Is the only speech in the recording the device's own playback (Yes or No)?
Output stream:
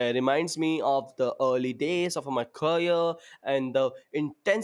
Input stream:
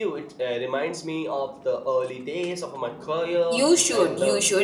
No